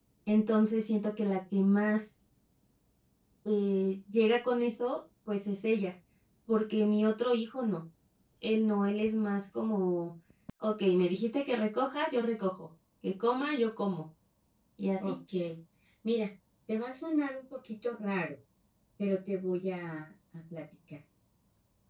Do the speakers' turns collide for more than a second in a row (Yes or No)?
No